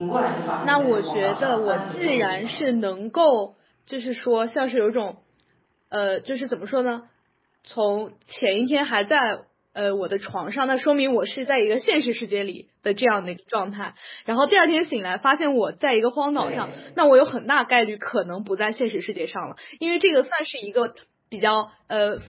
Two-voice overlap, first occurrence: 1 s

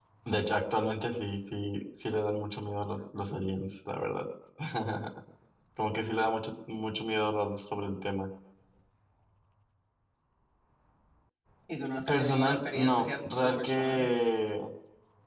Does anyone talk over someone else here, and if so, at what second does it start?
12 s

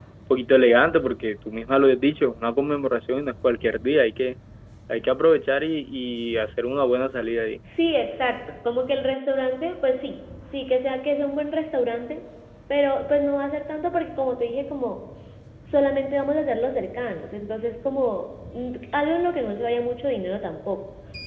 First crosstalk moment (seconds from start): none

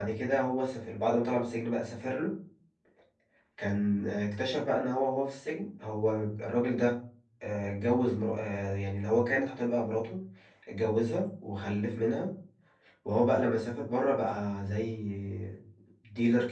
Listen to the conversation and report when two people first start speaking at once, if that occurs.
none

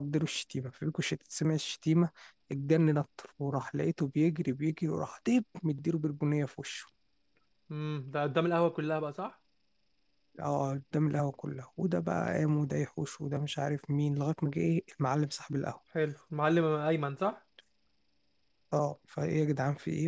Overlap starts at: none

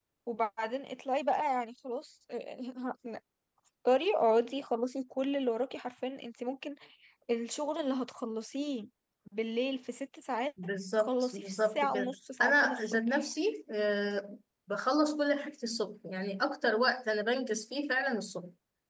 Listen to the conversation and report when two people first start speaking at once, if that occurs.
11 s

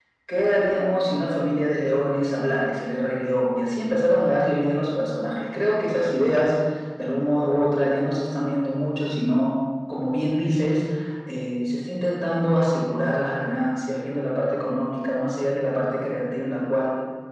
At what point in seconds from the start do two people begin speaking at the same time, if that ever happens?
none

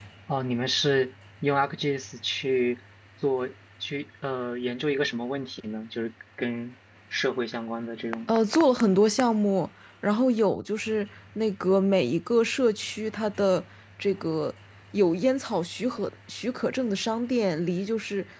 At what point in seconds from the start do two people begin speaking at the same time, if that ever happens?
none

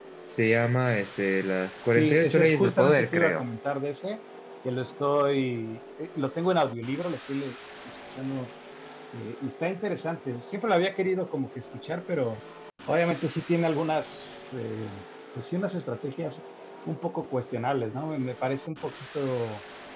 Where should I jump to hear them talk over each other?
2 s

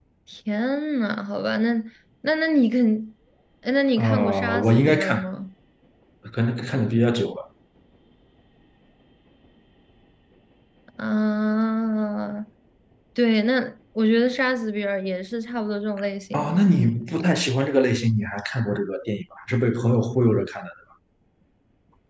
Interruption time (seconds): 4 s

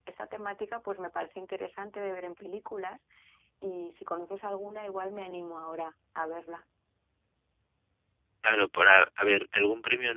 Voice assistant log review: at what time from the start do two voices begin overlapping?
none

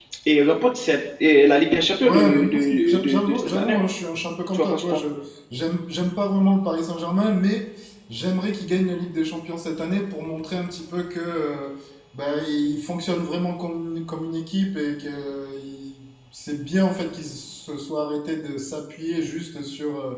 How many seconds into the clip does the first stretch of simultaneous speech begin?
2 s

